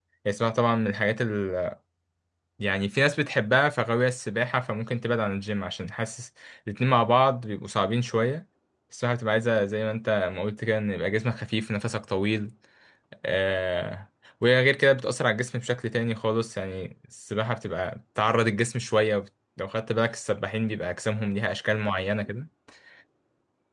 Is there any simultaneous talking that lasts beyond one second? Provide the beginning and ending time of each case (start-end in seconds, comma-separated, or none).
none